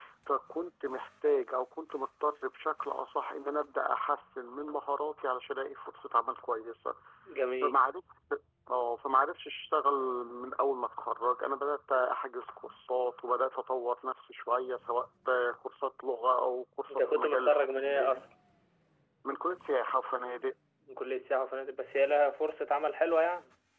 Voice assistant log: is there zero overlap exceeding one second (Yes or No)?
No